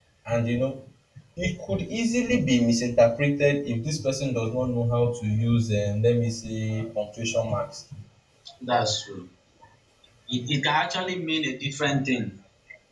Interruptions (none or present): none